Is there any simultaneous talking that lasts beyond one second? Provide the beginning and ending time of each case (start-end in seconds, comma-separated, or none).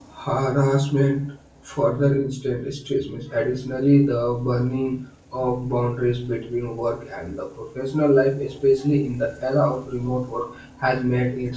none